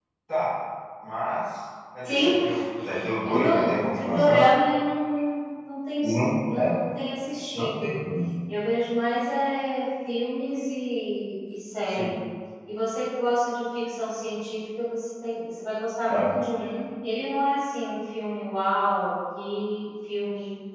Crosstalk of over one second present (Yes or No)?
Yes